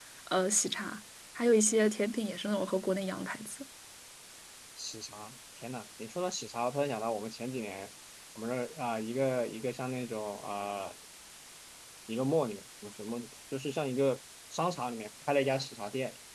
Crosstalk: none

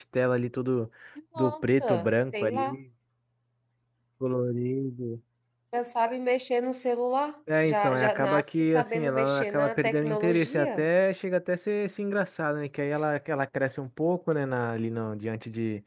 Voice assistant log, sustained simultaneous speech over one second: present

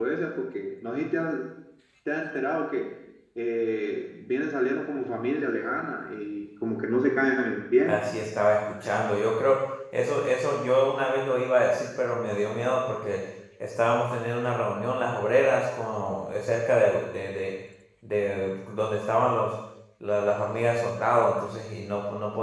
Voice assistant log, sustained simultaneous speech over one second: none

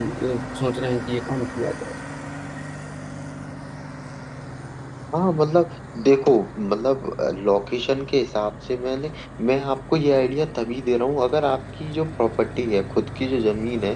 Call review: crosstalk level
none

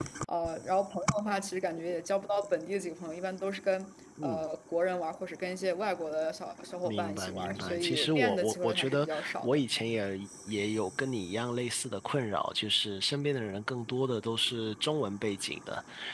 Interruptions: present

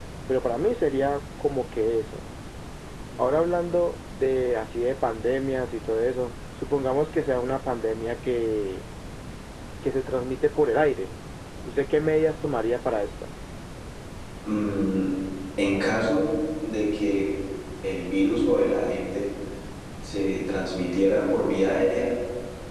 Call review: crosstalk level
none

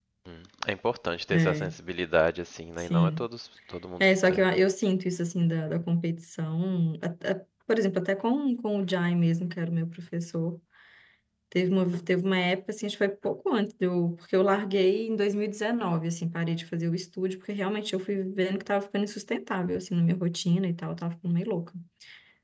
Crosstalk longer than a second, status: none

